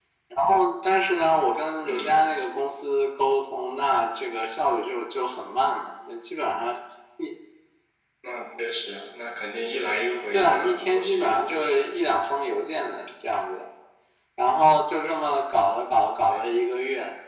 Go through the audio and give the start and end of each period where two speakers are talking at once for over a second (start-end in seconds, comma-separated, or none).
10.3-11.9